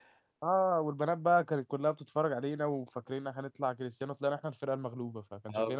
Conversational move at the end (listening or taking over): taking over